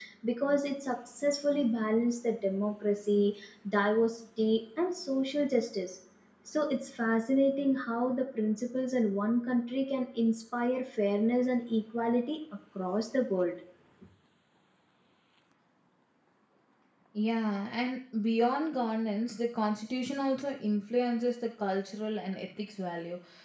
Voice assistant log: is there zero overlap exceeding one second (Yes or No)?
Yes